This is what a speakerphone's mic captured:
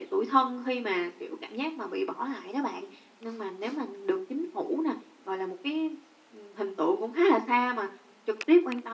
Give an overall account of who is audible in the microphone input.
echo only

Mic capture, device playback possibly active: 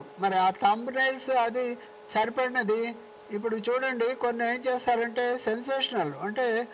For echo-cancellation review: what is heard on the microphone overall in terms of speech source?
echo only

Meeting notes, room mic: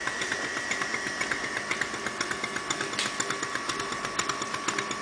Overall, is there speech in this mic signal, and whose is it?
neither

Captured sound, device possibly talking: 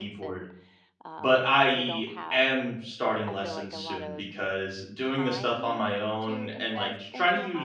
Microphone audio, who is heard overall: both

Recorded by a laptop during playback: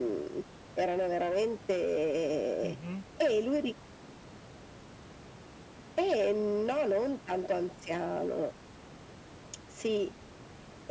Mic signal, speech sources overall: both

